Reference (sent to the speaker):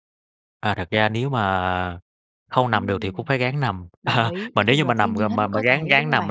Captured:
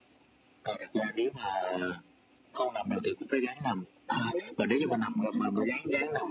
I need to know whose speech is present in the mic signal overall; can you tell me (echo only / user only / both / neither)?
echo only